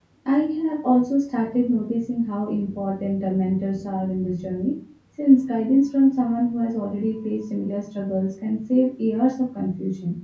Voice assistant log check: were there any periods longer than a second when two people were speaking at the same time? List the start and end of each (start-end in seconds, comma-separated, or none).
none